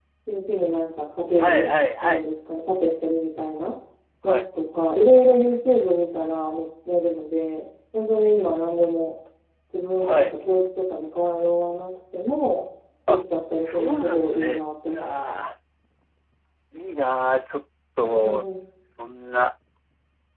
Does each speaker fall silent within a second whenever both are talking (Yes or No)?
No